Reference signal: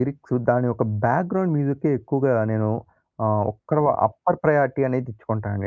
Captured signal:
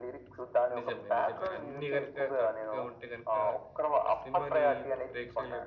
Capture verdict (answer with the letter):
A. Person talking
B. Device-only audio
A